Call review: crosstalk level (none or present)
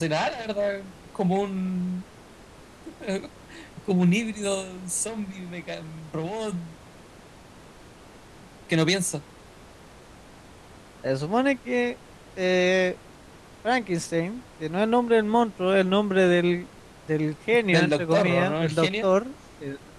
present